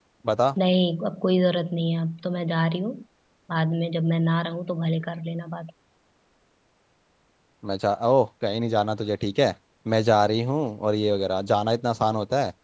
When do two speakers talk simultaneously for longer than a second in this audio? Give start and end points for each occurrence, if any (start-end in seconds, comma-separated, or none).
none